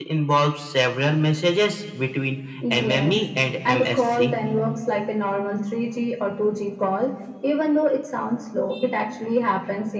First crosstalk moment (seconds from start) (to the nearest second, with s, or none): 3 s